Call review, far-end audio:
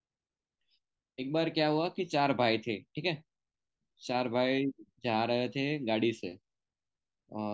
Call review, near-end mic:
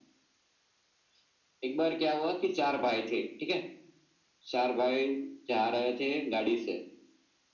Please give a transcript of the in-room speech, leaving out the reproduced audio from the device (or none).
none